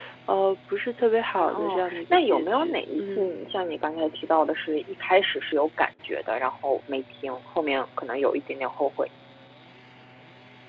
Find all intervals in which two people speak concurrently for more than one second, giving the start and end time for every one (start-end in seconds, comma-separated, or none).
1.4-3.3